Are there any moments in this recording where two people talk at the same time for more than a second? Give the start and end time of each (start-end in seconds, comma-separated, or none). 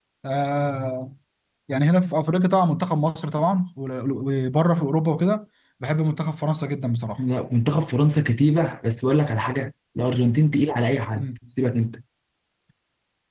none